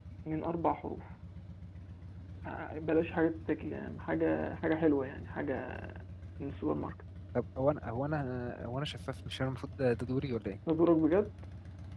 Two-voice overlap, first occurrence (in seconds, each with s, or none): none